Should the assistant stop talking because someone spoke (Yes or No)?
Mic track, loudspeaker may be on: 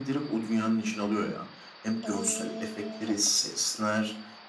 Yes